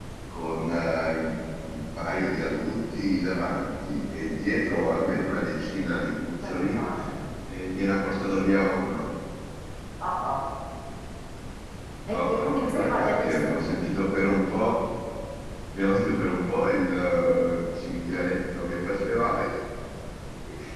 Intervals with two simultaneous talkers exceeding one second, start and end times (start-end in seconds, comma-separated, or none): 12.1-13.6